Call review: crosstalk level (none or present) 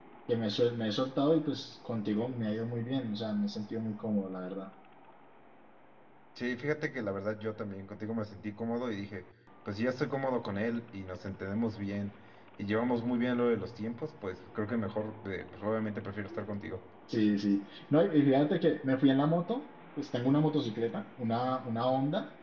none